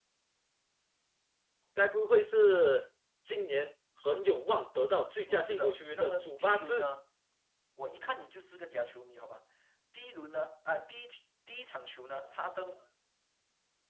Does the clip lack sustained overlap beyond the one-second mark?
No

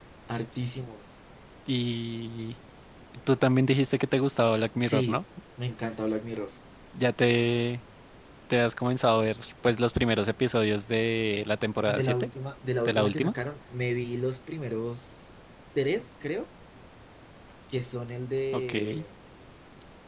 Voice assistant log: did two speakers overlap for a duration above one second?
No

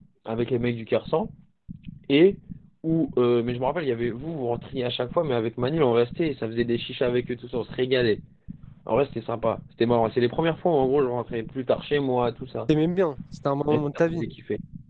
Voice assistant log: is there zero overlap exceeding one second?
Yes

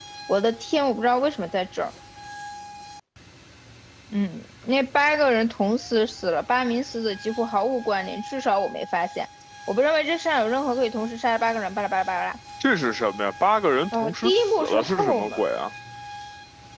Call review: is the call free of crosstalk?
No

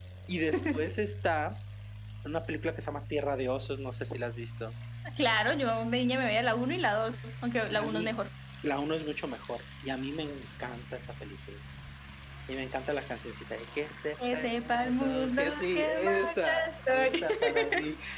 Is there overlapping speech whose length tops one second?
Yes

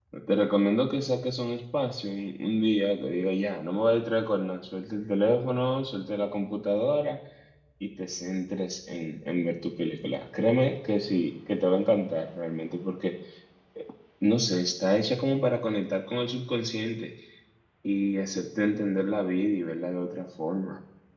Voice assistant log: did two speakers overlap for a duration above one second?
No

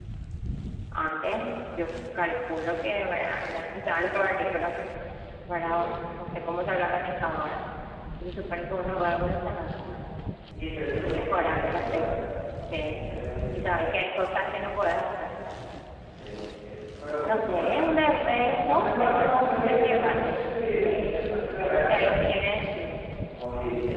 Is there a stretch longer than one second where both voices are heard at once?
Yes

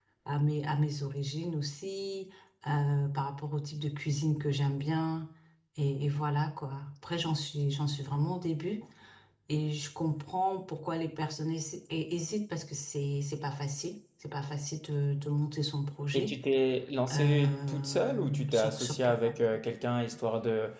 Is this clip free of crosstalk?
No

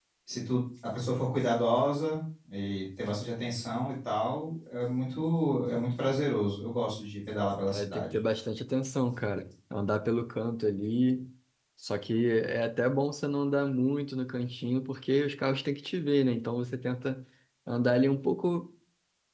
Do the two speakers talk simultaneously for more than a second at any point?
No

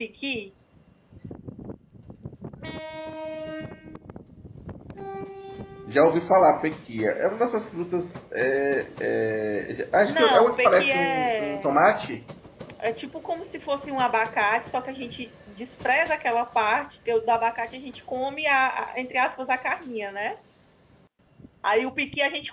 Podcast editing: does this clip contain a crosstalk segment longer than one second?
Yes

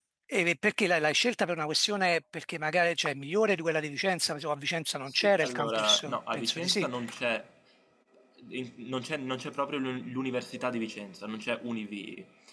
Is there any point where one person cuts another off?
Yes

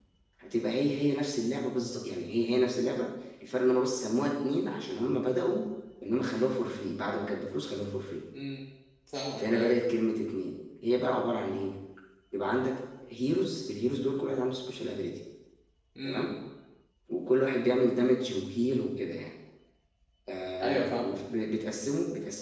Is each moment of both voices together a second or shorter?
Yes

